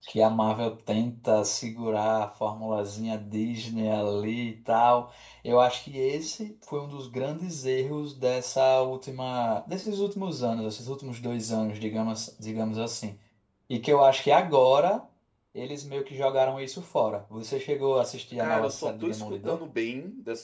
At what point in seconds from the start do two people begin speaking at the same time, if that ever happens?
18 s

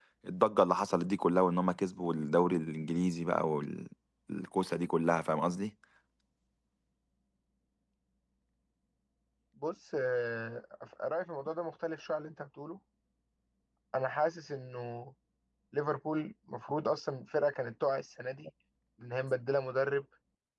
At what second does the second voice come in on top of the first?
none

